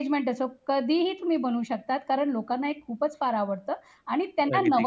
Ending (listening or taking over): listening